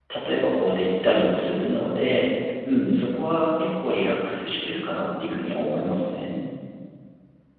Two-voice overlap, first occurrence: none

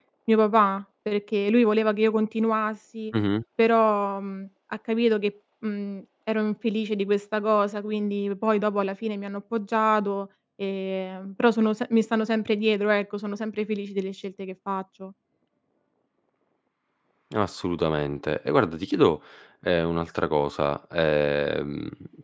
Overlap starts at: none

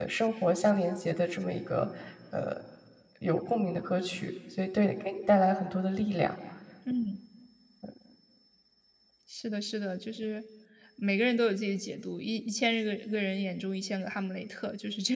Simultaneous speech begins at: none

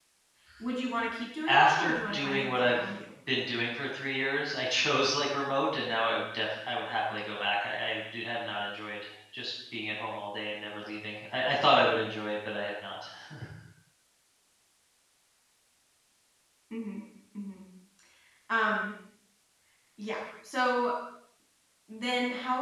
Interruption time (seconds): 1.5 s

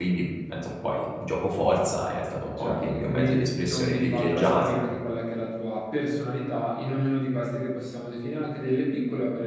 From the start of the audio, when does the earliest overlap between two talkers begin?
2.6 s

